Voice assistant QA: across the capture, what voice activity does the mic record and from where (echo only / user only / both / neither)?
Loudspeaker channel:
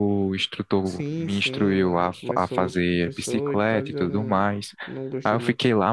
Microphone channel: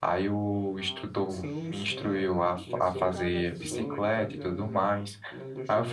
both